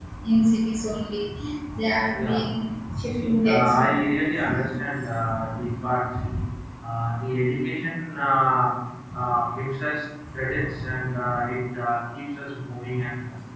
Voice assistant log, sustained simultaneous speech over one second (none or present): present